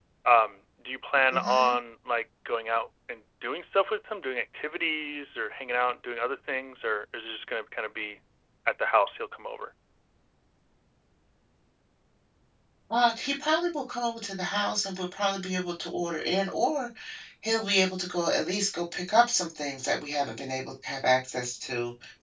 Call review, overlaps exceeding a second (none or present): none